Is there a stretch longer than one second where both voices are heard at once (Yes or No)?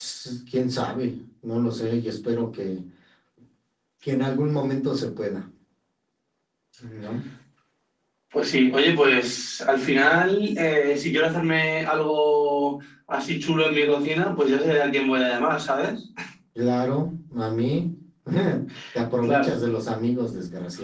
No